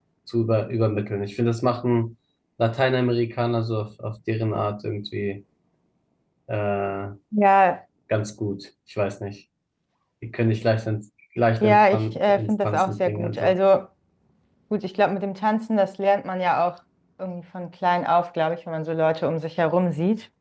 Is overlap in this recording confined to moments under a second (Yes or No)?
No